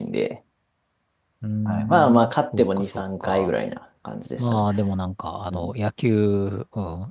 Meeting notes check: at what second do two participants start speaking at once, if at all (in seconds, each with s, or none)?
1.6 s